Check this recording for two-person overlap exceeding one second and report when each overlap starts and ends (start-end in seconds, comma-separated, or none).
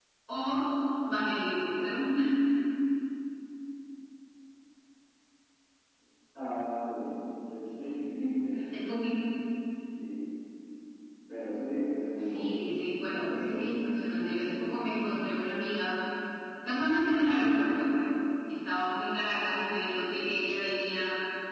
12.2-13.8